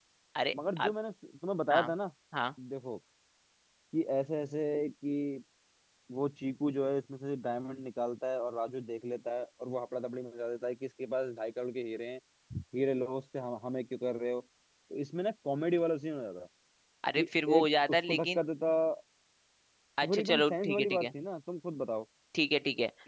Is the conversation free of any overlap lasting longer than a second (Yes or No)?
No